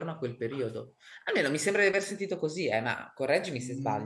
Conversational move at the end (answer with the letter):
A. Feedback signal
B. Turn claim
B